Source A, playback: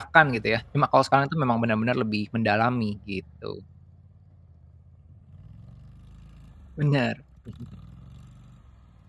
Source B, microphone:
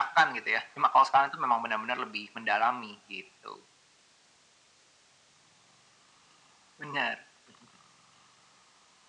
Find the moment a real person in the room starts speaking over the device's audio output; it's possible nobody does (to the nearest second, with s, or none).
none